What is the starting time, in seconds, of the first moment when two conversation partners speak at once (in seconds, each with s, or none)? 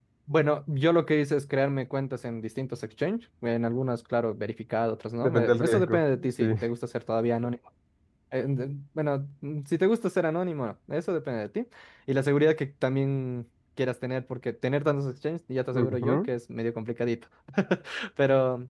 5.2 s